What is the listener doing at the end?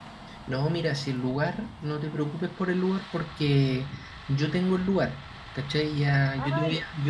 listening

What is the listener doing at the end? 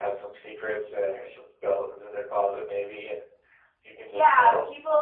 taking over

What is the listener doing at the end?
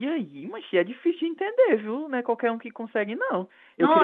listening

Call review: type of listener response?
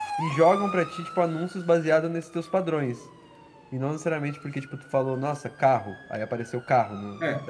taking over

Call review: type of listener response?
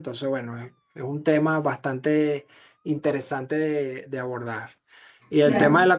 listening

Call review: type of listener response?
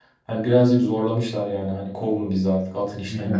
taking over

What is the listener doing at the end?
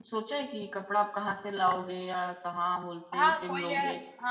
taking over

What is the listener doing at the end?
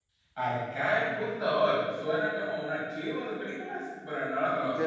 taking over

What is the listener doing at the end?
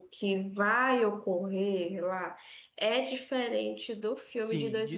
taking over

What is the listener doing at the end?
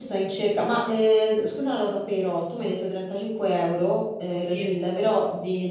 listening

